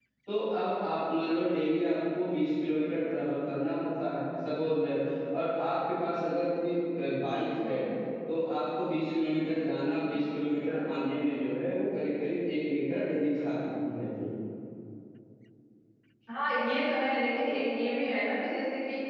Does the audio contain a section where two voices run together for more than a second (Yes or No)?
No